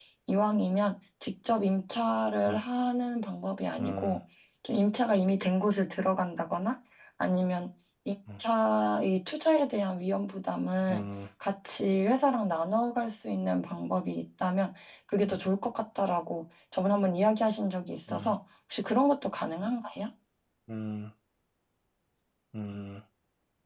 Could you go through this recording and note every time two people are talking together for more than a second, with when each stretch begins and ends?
none

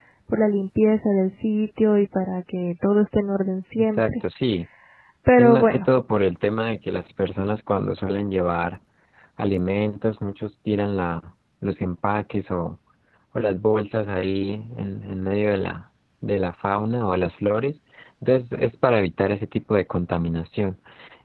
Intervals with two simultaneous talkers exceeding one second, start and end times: none

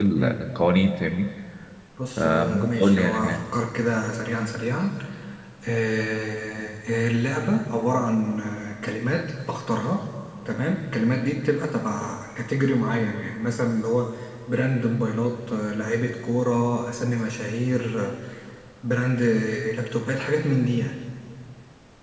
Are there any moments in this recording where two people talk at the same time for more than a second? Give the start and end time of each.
2.2-3.4

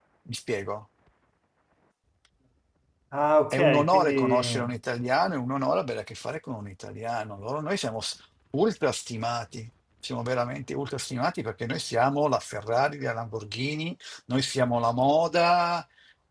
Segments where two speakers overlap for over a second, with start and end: 3.5-4.7

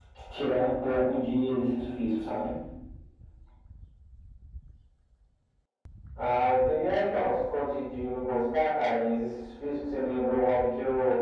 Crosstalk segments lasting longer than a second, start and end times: none

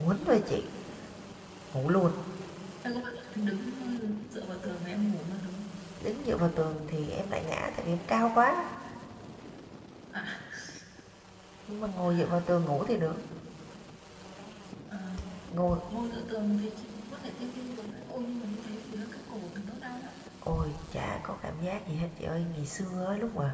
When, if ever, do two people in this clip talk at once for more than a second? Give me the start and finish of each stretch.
none

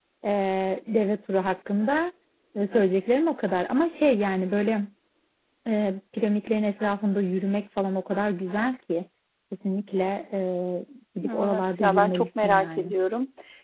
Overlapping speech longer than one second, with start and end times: 11.3-12.9

